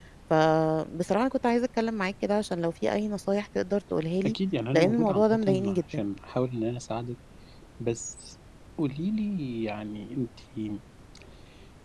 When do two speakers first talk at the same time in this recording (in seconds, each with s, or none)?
4.7 s